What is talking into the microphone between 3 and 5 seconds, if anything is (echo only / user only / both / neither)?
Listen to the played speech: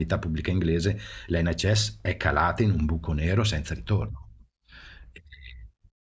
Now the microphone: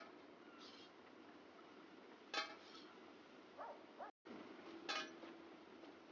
neither